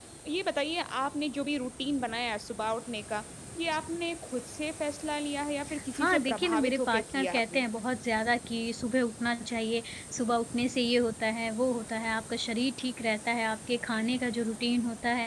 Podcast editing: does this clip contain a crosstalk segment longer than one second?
Yes, from 6.0 s

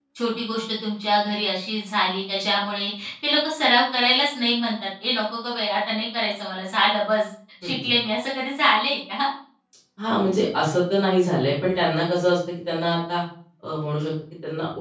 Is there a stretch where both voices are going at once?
No

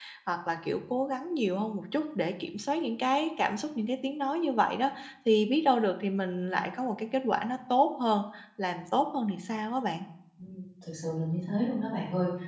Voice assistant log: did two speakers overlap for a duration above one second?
No

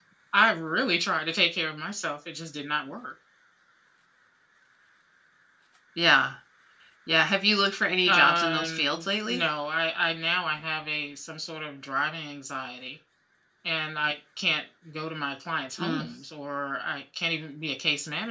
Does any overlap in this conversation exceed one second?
Yes, from 8.1 s

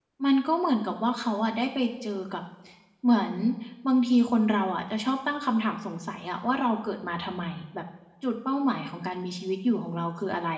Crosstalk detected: No

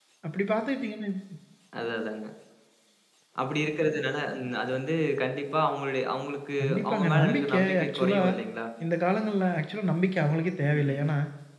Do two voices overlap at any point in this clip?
Yes, from 6.6 s

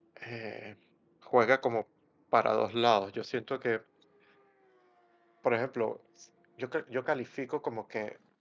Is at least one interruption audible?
No

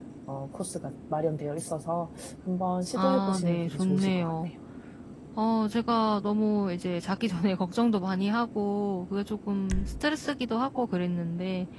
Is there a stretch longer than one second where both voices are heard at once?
Yes, from 3.0 s

